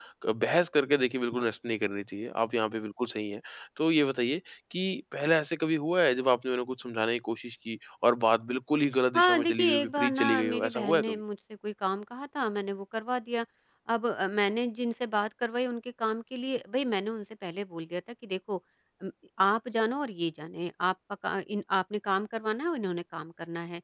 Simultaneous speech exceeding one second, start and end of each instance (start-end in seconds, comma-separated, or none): 9.1-11.2